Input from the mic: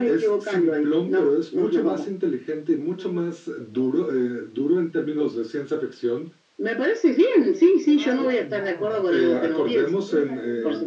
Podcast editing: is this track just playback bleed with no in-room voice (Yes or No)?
No